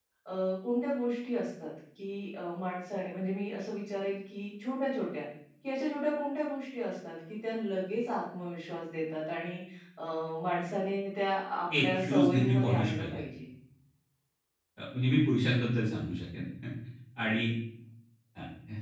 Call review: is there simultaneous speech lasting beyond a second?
Yes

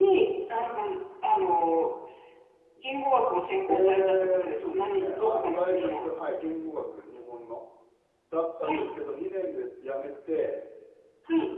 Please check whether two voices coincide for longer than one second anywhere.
Yes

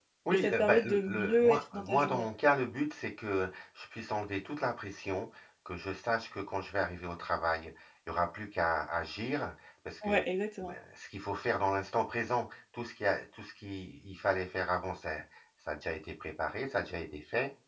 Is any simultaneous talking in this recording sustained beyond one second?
Yes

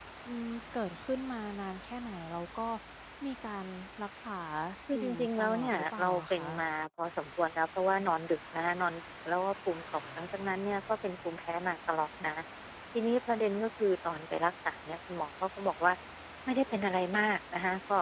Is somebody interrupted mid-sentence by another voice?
Yes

